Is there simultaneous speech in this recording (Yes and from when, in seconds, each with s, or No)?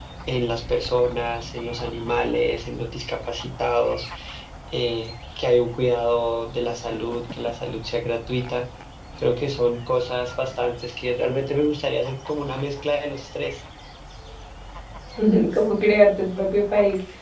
No